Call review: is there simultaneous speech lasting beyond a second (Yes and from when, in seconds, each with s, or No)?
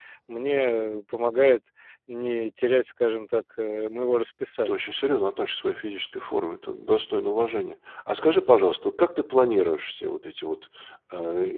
No